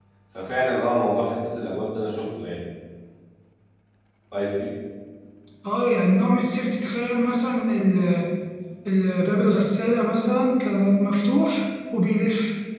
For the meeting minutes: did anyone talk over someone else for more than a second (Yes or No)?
No